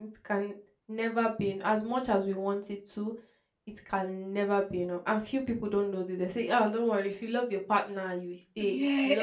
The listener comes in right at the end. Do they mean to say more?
Yes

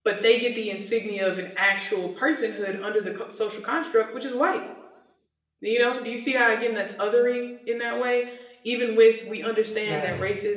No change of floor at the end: Yes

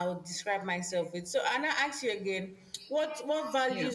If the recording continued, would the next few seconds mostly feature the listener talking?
No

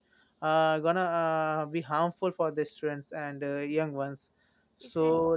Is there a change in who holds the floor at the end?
No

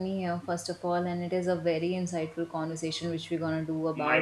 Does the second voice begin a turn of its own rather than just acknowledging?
No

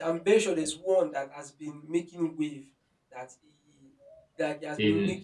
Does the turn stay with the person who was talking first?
Yes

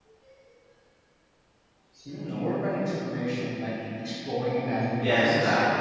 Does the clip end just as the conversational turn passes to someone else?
Yes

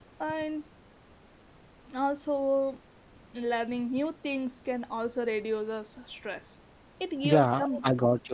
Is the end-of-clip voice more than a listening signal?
Yes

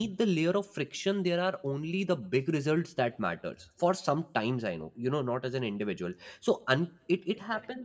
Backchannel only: Yes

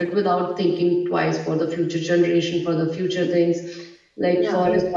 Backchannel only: Yes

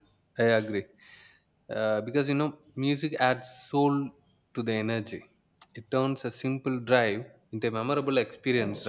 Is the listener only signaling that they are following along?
No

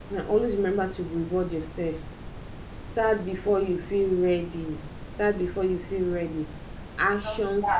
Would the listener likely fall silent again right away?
Yes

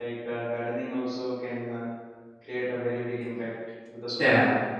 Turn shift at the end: Yes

